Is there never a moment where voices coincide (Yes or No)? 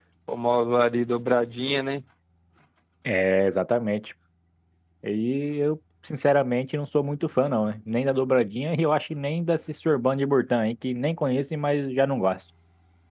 Yes